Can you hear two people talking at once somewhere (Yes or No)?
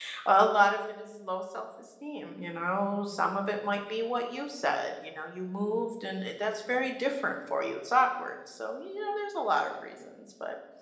No